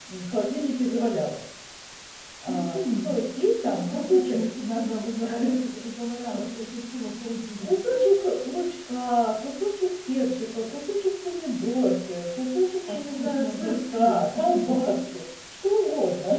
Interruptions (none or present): present